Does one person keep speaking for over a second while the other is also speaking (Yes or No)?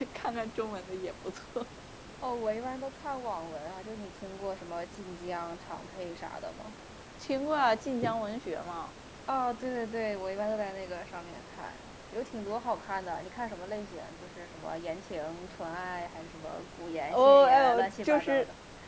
Yes